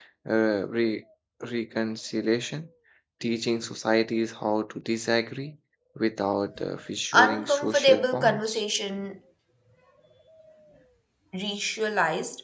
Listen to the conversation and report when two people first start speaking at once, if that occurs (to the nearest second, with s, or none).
7 s